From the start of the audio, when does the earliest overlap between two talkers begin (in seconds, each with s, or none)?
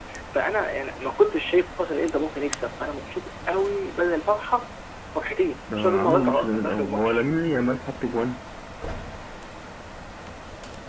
5.7 s